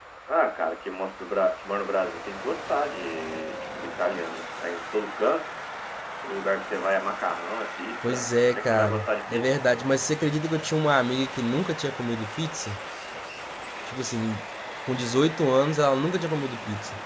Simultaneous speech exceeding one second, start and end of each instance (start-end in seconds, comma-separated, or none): 8.0-9.5